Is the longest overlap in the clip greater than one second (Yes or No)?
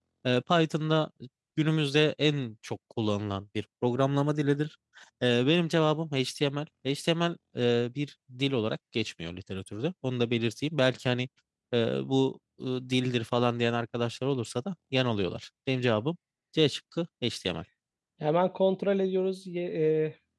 No